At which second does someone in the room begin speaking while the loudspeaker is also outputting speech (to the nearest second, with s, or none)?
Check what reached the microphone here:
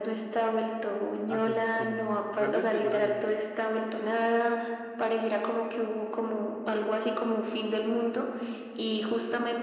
1 s